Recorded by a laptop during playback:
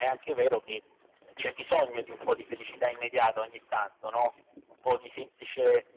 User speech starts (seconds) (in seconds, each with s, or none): none